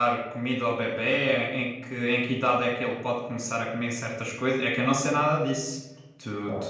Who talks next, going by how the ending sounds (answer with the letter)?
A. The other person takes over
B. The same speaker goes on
A